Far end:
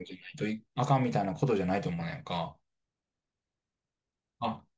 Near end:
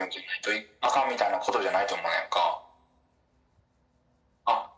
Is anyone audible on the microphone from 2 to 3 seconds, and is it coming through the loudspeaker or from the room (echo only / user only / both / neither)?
echo only